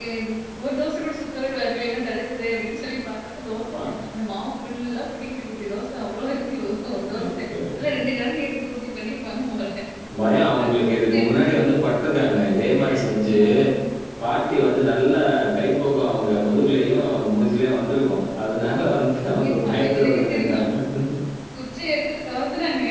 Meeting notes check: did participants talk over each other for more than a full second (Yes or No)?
Yes